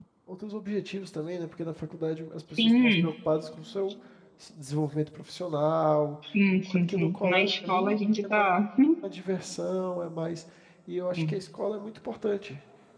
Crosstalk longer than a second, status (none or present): present